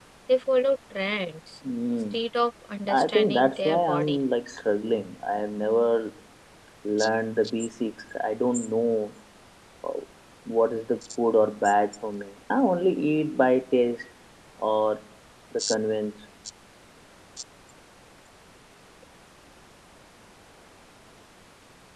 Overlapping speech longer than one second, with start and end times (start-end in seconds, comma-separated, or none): 2.9-4.2